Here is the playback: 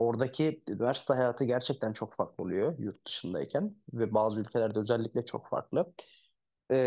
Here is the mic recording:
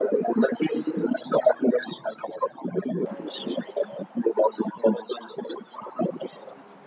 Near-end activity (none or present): none